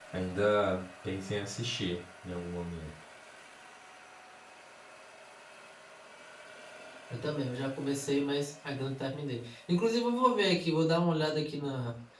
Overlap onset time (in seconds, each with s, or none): none